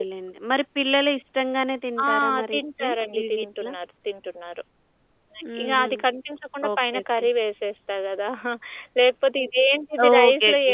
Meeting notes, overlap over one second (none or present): present